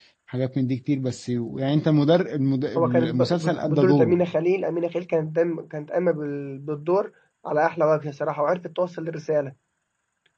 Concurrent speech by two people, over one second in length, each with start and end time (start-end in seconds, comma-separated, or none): 2.8-4.2